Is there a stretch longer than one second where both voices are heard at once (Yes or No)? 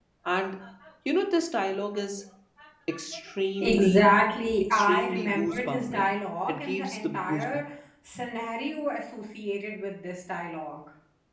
Yes